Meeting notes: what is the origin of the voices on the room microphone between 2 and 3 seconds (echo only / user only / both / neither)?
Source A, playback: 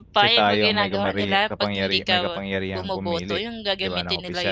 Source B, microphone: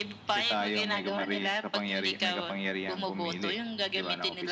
echo only